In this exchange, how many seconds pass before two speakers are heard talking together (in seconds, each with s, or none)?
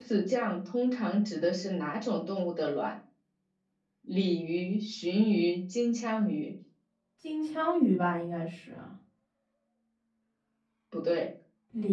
none